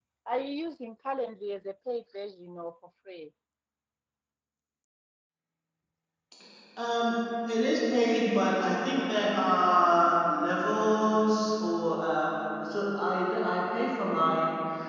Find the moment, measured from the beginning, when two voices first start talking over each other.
none

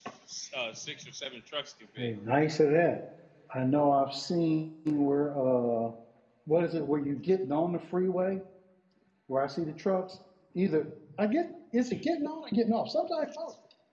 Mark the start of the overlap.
none

